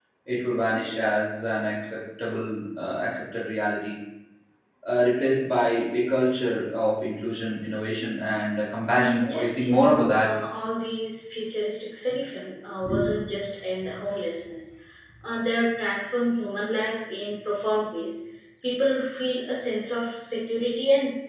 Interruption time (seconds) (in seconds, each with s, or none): 8.9 s